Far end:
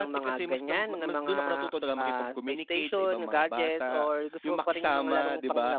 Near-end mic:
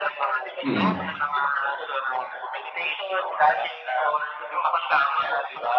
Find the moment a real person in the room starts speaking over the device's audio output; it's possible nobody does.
0.6 s

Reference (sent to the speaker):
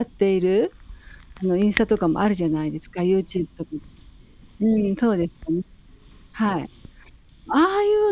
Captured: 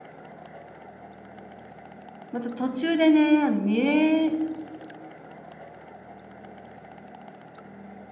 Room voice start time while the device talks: 2.3 s

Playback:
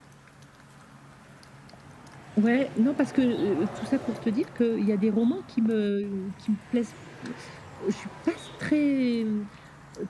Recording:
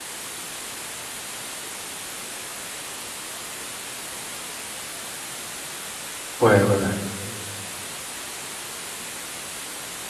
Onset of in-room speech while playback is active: 6.4 s

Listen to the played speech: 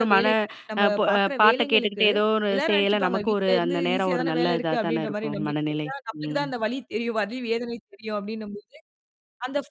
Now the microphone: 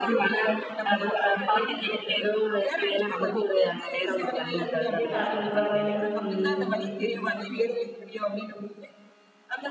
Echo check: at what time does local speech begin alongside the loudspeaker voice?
5.2 s

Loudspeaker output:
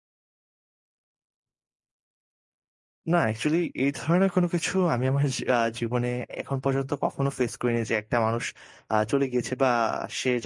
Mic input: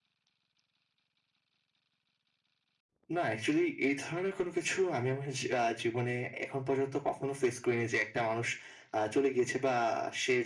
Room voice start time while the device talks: none

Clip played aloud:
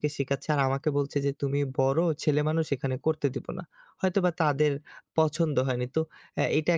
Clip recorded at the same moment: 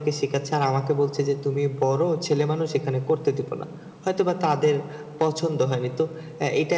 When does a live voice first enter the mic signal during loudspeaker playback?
none

